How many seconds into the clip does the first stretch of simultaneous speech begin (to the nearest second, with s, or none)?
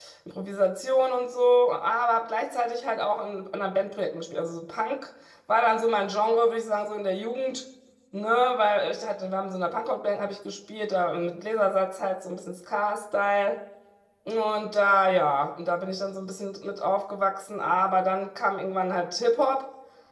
none